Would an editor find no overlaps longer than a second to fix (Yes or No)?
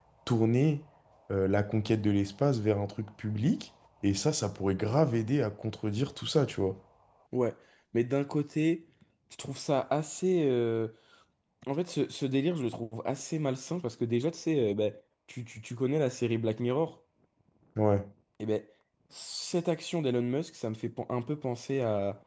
Yes